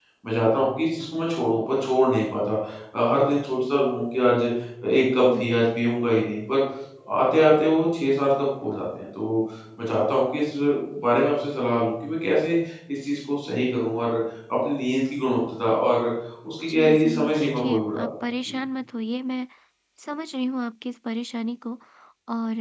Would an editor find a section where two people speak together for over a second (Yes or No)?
Yes